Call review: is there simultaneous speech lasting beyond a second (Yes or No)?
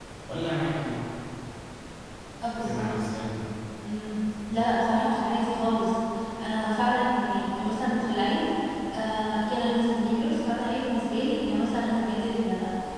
No